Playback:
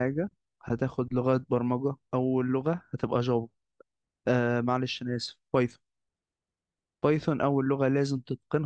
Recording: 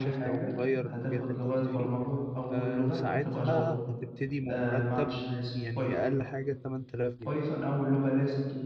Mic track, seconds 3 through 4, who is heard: both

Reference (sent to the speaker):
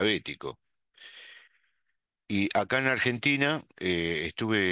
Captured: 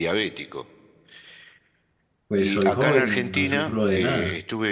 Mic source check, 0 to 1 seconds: echo only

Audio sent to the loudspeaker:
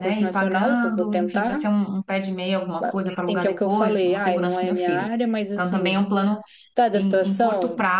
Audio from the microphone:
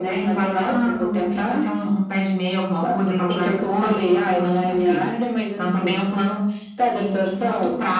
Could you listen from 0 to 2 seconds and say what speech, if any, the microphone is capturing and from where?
echo only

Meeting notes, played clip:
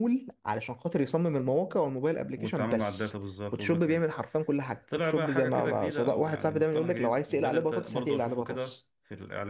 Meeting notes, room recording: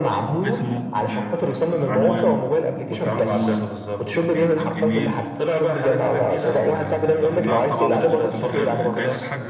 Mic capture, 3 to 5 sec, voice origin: both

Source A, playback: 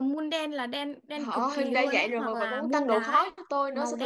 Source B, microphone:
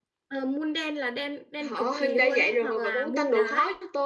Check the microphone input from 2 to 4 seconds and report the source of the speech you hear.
echo only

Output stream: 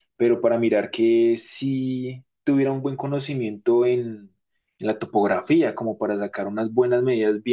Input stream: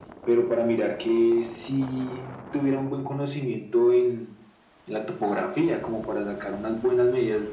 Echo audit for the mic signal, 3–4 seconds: echo only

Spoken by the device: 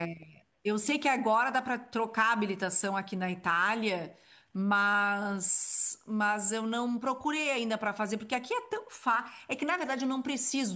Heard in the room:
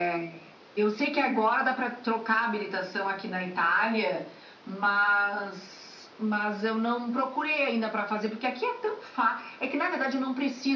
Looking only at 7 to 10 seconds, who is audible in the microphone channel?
echo only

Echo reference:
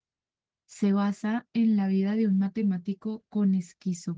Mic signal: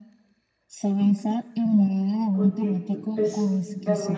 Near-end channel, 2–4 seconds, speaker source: both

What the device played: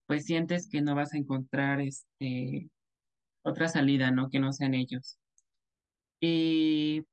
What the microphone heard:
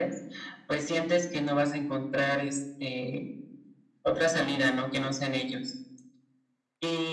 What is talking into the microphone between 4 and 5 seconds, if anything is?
echo only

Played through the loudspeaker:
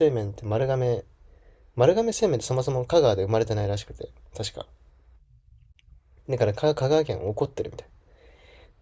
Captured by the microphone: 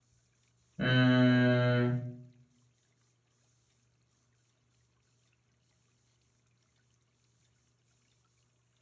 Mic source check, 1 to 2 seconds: user only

